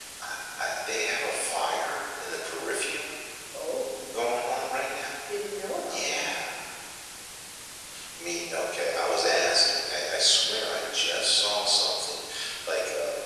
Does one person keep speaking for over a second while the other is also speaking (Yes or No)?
No